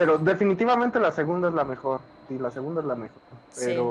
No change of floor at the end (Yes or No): Yes